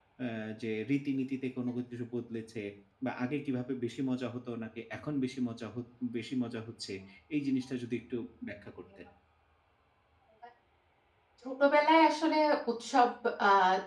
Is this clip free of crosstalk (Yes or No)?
Yes